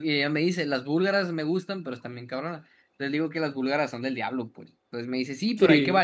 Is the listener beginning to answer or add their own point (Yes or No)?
No